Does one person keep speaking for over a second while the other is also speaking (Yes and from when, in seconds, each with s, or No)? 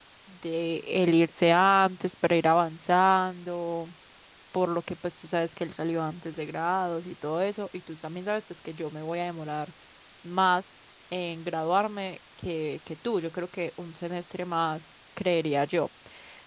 No